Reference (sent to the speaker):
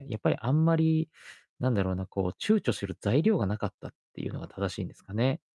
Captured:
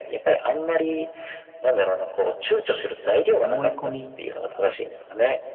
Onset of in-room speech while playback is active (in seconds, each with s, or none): 3.3 s